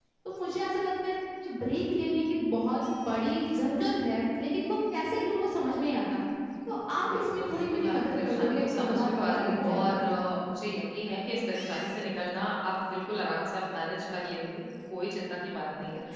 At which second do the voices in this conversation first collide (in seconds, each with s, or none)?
7.1 s